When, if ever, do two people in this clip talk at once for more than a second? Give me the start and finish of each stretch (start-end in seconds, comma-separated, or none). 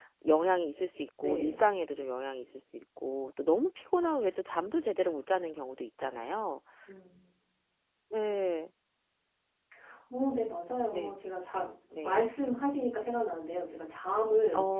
none